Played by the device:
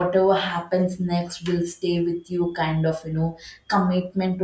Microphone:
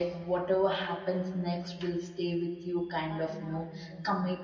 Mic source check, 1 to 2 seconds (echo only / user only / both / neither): echo only